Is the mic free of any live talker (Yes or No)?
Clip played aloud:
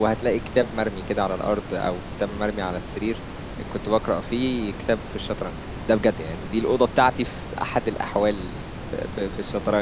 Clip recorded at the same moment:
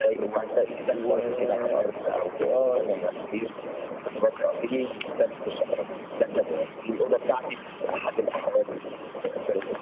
No